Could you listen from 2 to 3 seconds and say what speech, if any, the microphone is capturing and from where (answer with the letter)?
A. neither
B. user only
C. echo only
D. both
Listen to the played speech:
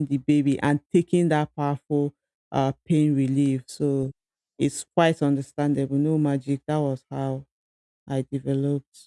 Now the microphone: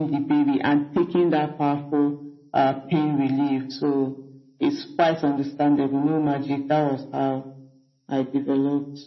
C